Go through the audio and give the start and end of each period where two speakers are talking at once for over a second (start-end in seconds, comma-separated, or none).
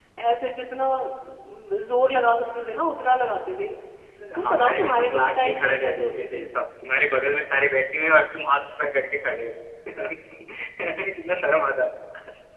4.4-6.5